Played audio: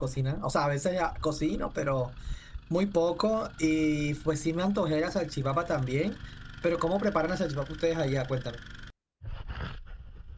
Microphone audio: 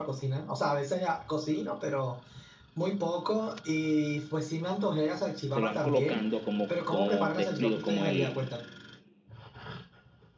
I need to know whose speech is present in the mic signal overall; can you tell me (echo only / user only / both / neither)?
both